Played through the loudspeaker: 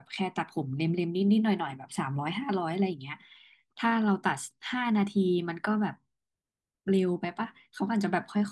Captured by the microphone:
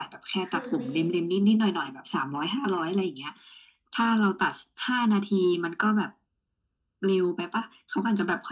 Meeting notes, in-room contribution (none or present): present